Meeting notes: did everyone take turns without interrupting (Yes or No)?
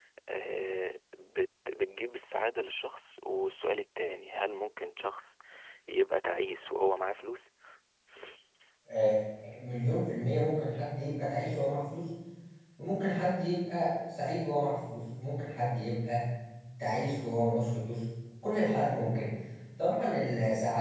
Yes